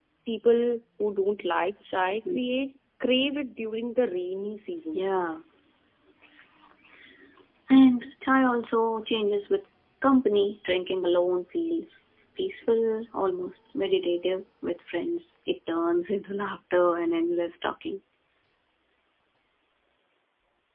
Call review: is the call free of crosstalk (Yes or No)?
Yes